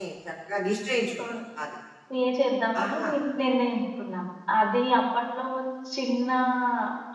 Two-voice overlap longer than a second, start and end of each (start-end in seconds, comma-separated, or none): none